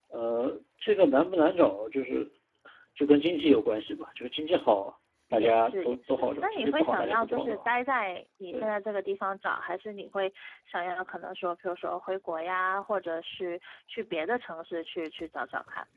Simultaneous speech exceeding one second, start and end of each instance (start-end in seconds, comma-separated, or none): 5.3-7.6